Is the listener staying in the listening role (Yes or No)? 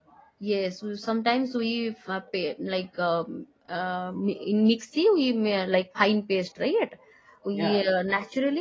Yes